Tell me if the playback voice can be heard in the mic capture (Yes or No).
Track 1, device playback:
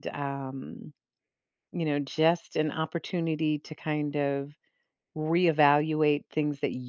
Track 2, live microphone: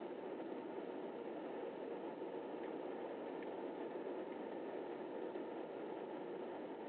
No